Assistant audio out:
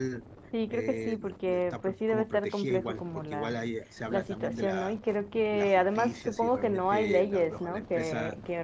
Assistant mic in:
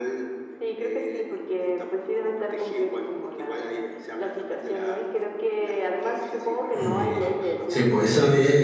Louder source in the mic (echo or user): user